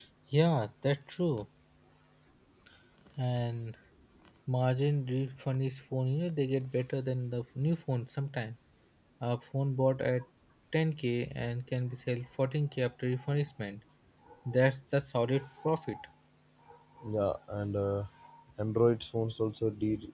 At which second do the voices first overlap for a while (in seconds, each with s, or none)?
none